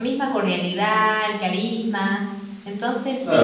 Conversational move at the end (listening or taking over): taking over